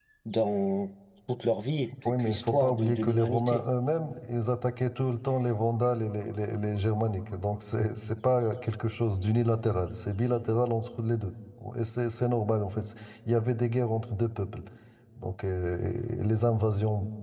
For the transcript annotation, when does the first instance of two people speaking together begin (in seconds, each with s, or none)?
1.9 s